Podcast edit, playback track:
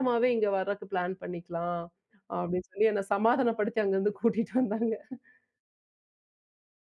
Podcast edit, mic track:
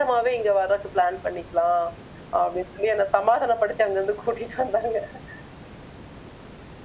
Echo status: present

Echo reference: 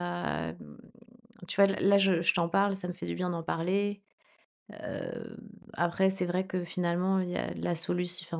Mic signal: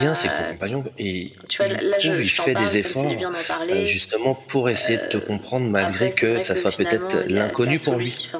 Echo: present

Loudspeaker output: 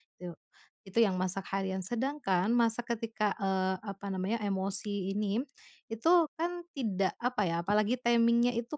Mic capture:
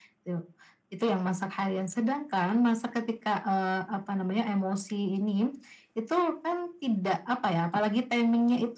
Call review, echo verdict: present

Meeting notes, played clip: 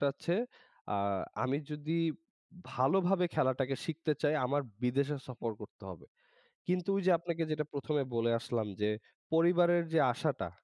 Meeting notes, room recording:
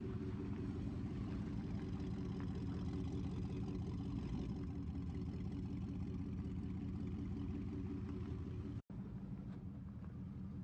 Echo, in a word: none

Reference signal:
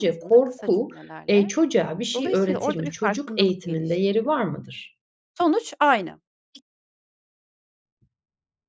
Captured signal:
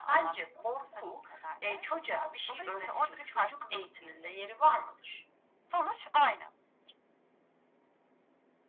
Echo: present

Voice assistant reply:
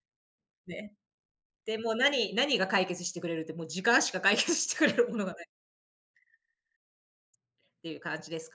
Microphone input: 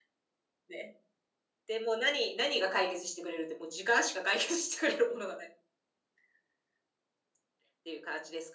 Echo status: present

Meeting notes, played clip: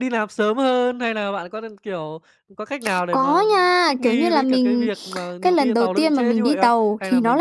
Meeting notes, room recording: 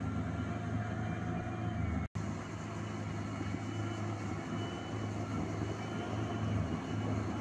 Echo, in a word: none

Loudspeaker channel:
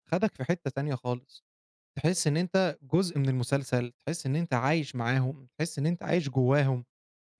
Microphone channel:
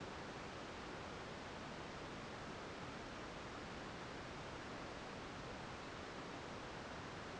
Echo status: none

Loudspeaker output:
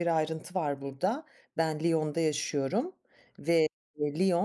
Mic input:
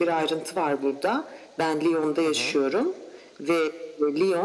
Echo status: present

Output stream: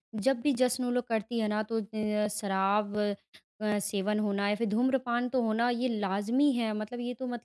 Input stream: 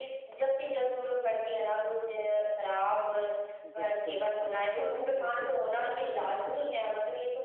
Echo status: present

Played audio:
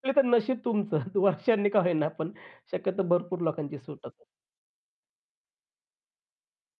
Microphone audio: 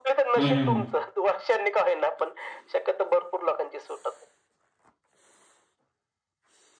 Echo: present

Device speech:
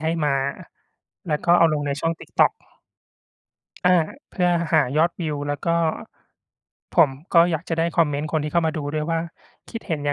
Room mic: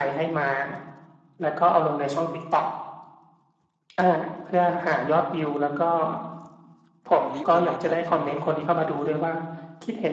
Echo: present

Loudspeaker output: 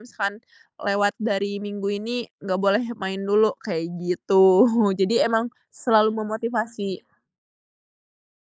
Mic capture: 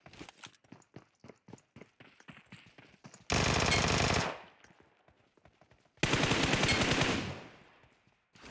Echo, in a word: none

